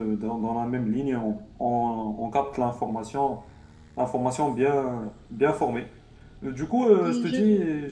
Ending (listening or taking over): listening